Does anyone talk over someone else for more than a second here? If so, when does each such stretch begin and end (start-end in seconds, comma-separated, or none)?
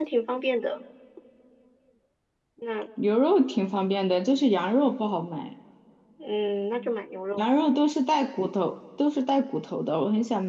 none